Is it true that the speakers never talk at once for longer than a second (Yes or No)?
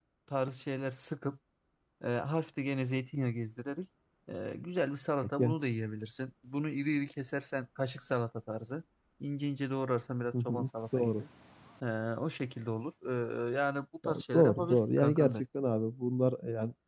No